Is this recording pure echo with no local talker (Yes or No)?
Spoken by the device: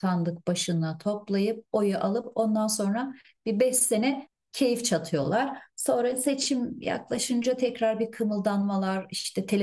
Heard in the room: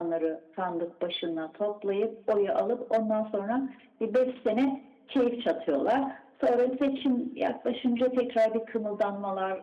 Yes